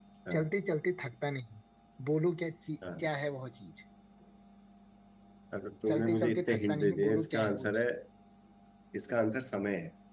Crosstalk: present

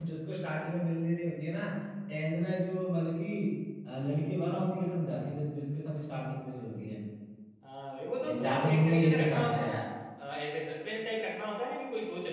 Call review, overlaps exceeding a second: present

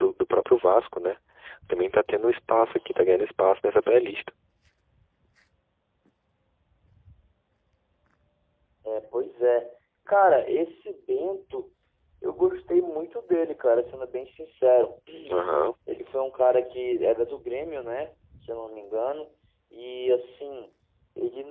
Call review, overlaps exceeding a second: none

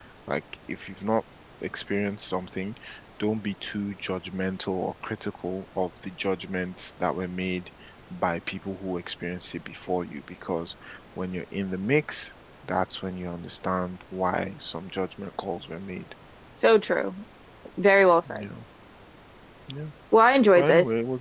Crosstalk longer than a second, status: none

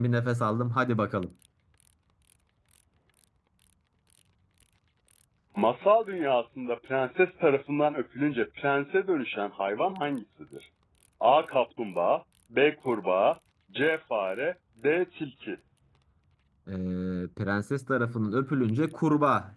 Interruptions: none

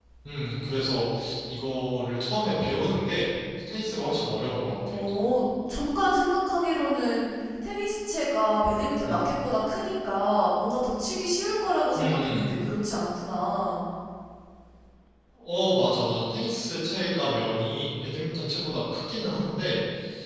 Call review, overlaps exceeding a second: none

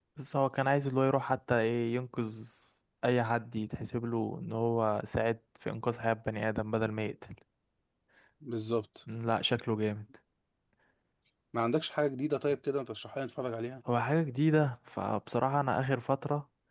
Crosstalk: none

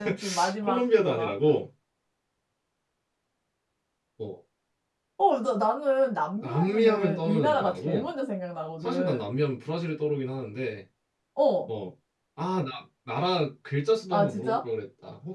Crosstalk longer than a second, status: present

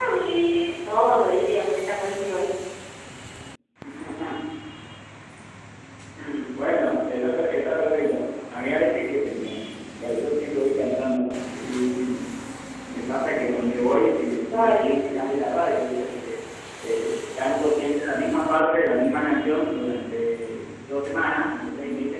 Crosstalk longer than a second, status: none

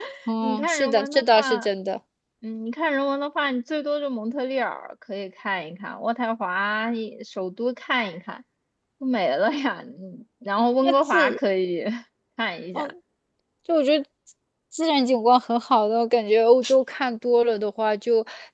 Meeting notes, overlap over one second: present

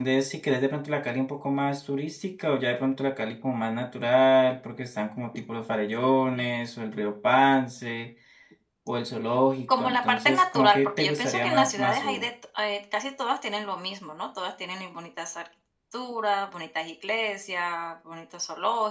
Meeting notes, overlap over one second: present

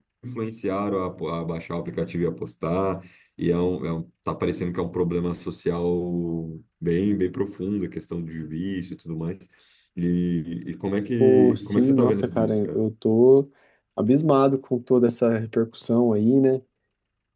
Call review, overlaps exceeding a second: present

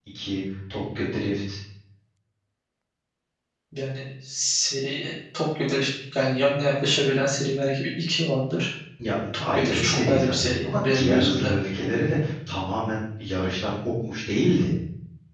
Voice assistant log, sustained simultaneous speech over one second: present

